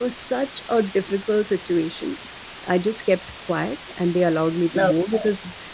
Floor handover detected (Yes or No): No